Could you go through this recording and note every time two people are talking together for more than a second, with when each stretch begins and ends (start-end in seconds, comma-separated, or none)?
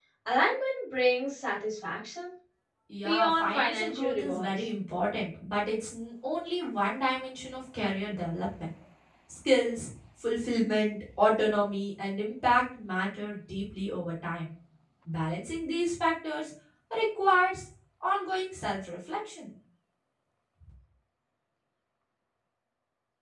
3.0-4.5